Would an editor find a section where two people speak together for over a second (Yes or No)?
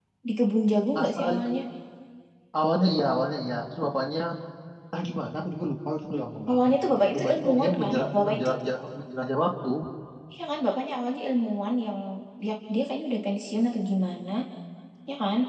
Yes